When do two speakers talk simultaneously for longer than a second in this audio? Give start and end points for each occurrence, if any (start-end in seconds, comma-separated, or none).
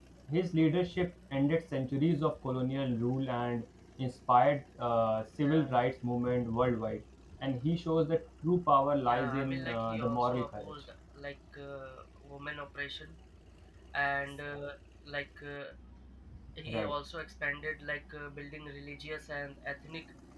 9.1-10.7